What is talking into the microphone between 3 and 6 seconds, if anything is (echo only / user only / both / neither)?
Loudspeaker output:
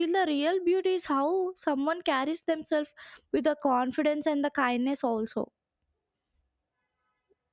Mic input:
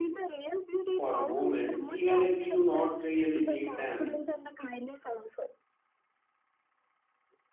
both